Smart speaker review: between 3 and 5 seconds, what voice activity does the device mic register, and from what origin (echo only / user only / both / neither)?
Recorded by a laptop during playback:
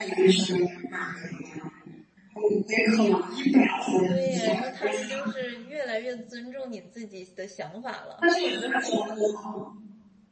both